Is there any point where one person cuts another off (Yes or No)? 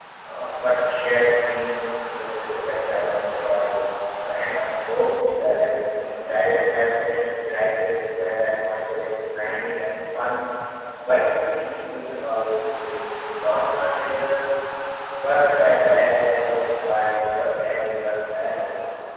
No